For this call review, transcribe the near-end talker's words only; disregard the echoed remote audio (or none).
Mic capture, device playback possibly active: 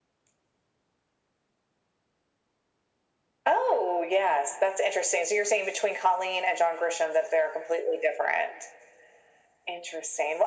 none